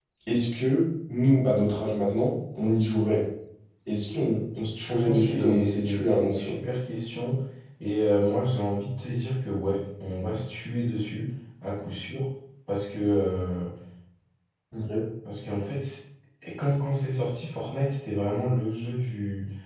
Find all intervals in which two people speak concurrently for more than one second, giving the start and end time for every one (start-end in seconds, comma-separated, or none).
4.8-6.6